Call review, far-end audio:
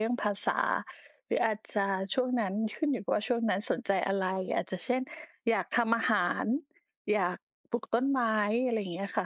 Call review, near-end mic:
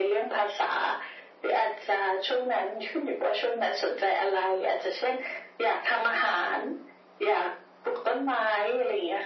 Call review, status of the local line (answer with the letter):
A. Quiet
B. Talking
A